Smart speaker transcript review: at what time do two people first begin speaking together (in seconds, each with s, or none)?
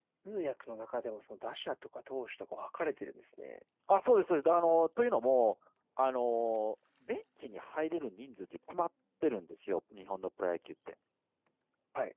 none